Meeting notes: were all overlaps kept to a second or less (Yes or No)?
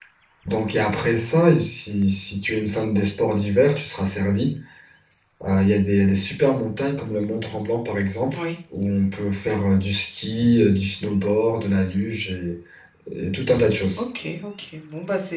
Yes